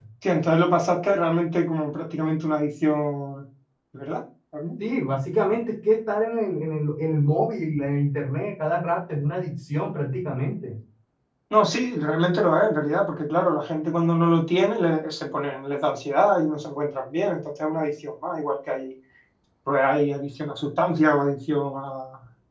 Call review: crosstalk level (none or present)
none